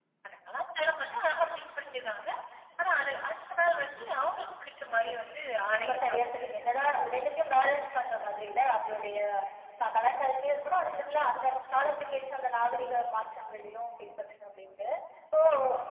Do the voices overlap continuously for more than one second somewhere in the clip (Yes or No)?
Yes